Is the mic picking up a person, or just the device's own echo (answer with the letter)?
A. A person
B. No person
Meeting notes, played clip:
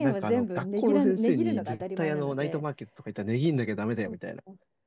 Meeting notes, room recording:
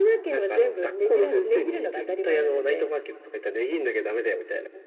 B